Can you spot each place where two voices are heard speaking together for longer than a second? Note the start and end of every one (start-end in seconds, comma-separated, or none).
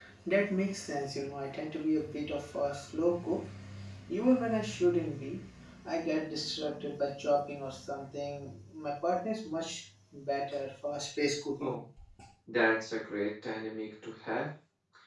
none